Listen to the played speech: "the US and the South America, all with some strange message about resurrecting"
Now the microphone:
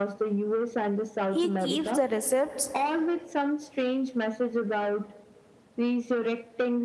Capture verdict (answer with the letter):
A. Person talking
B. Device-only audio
A